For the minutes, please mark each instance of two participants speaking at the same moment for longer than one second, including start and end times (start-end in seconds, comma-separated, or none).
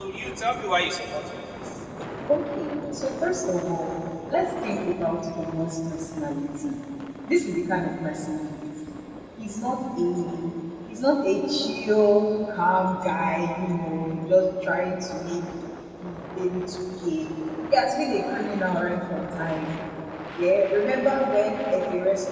none